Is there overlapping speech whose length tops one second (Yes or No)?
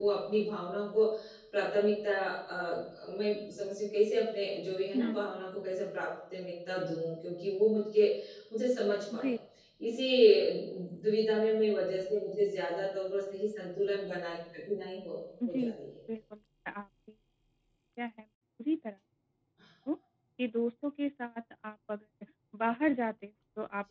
No